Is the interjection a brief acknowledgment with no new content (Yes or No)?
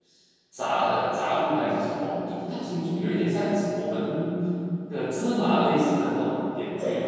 No